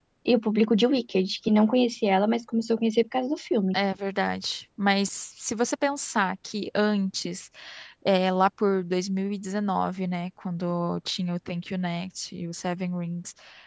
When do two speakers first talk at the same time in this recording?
none

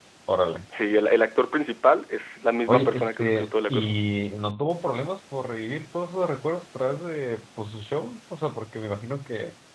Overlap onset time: 2.7 s

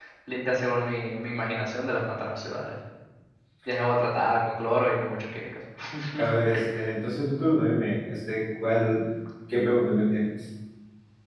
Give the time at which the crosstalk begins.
none

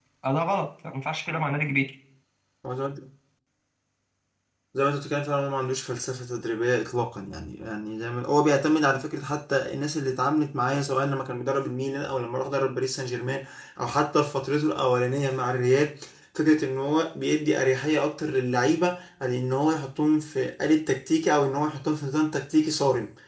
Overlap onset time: none

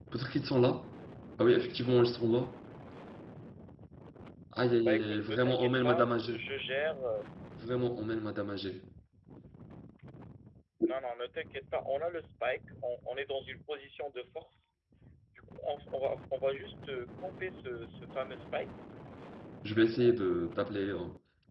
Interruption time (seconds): 4.8 s

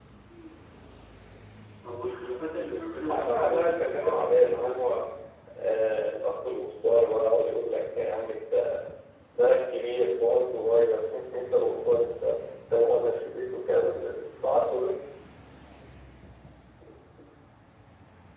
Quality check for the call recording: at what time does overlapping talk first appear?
3.1 s

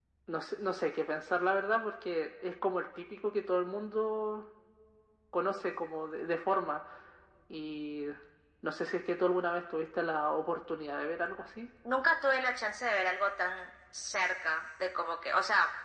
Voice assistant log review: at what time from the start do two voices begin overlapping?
none

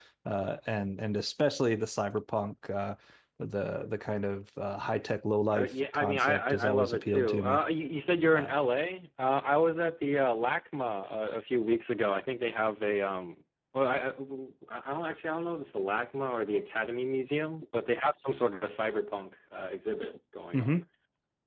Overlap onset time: 5.5 s

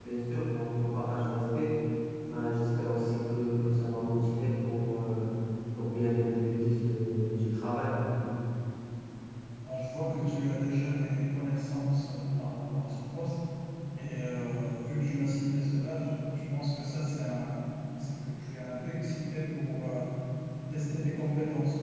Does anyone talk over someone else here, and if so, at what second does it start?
none

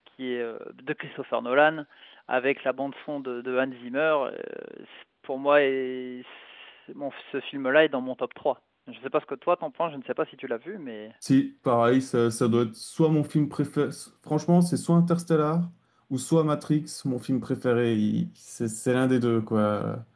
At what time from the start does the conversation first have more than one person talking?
none

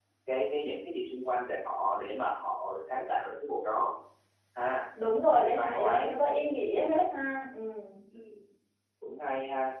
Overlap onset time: 5.4 s

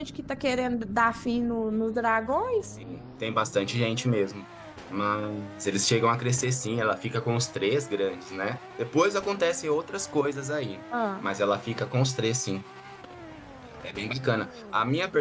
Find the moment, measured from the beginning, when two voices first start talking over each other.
none

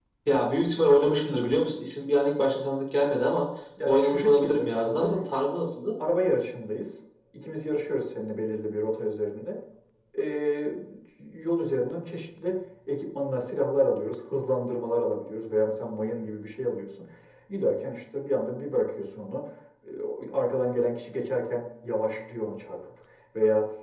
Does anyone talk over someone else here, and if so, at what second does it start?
3.8 s

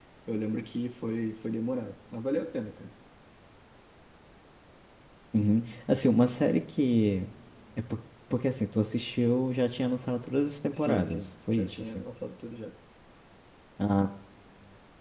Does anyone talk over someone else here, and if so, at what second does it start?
10.7 s

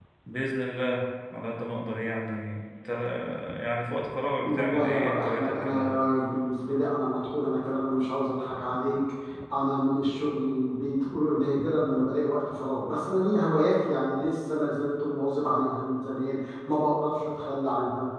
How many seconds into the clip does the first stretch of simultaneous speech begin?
4.5 s

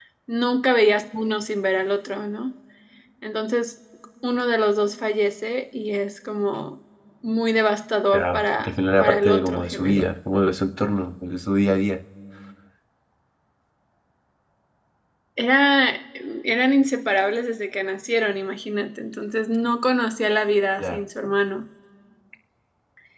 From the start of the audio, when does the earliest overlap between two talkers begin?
8.1 s

